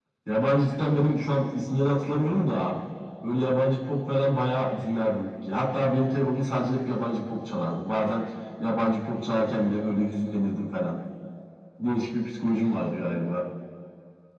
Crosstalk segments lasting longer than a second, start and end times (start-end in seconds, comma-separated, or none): none